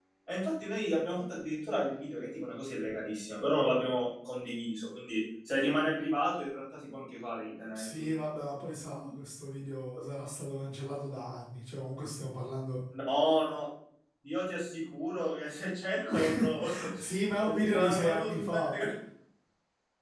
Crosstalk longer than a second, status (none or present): present